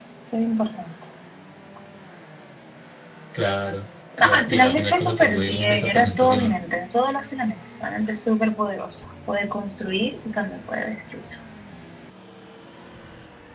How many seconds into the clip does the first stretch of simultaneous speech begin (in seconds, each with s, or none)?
4.2 s